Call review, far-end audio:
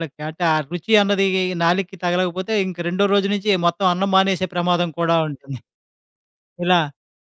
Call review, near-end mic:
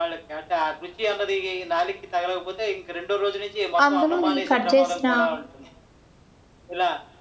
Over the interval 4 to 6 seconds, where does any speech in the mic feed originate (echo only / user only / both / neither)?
both